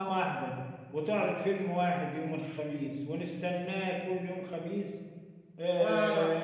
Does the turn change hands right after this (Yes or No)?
No